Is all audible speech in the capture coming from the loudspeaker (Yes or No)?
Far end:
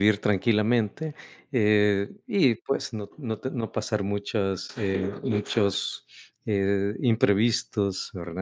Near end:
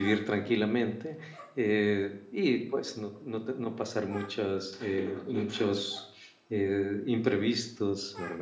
Yes